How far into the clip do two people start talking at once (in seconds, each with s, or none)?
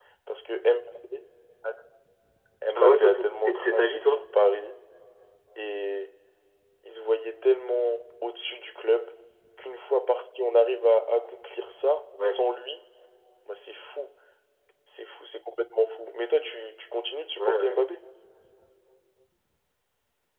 2.7 s